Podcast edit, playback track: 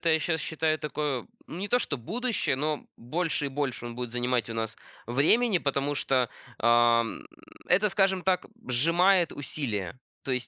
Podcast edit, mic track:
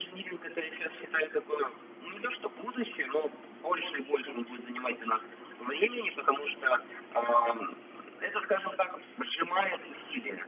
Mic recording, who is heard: echo only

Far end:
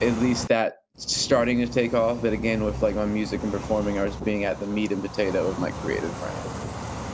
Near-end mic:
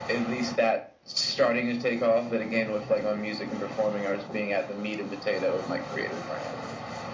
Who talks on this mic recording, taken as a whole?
echo only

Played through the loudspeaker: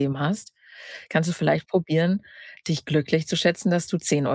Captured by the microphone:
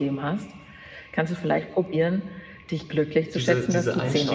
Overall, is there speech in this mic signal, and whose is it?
both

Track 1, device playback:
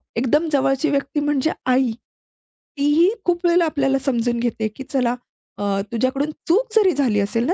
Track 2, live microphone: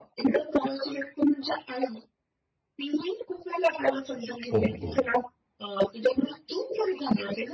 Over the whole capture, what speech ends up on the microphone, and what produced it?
both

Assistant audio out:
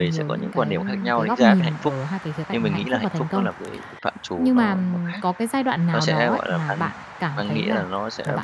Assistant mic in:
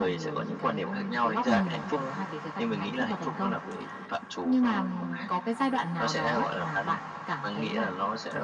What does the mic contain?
echo only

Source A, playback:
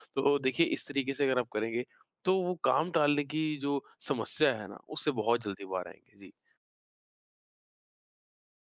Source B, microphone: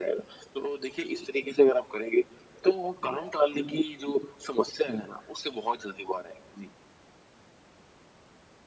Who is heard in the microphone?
echo only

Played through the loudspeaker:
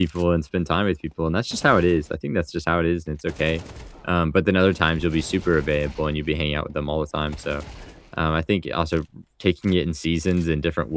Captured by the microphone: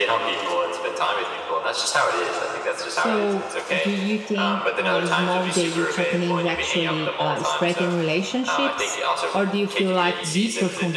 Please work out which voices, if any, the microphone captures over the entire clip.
both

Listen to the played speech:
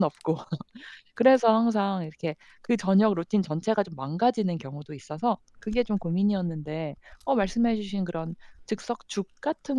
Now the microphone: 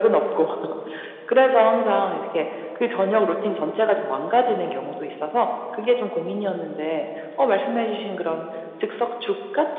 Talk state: echo only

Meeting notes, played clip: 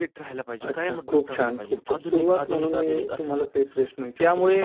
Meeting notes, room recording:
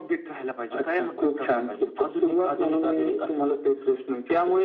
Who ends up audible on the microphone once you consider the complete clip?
echo only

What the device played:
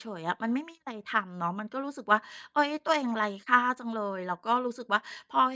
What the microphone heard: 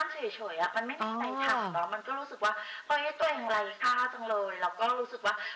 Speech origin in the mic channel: both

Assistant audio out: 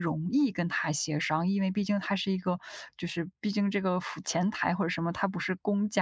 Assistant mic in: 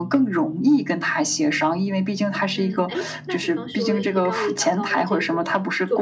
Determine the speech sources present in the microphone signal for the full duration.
both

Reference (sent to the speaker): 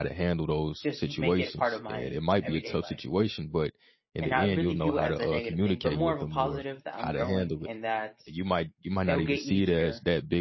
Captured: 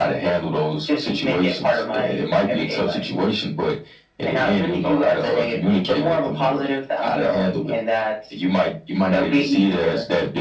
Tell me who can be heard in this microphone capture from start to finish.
echo only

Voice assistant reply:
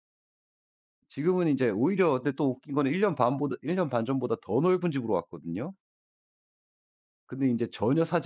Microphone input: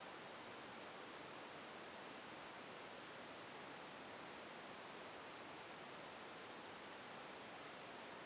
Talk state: neither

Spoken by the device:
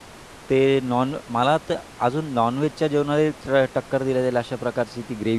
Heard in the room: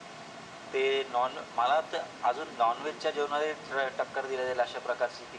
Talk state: echo only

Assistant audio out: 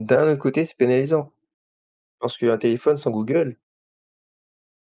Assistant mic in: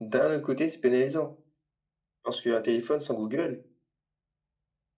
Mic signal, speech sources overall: echo only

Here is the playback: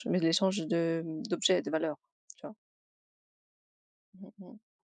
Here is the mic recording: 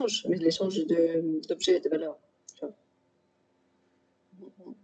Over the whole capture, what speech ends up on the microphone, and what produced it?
echo only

